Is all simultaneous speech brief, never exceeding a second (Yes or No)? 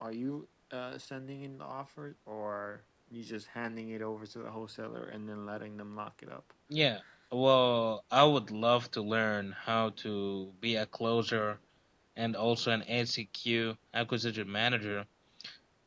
Yes